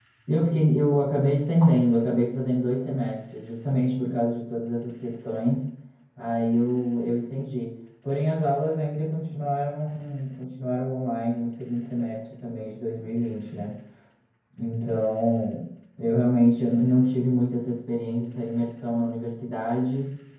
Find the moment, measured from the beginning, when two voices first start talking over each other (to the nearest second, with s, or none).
none